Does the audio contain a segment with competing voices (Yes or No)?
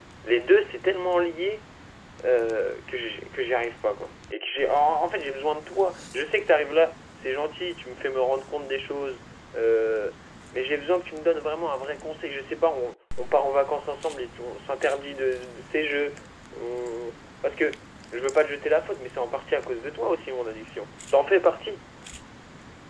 No